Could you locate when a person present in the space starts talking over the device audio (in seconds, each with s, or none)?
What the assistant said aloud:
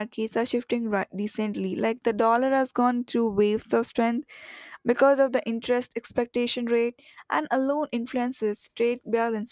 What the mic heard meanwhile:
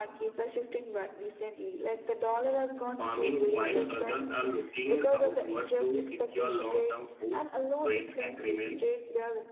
3.0 s